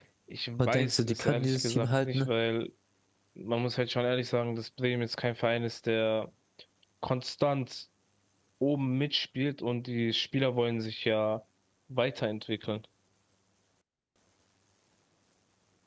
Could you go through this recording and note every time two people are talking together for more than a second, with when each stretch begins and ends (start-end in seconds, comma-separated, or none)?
0.6-2.3